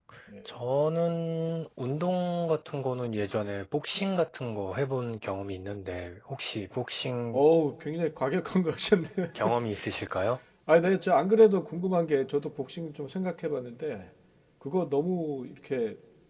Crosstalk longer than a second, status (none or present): none